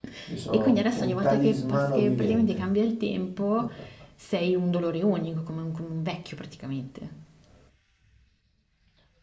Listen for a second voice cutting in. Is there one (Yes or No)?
Yes